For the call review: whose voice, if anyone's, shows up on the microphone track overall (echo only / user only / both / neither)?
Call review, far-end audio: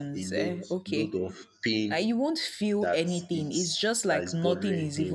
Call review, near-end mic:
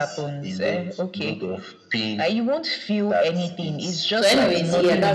both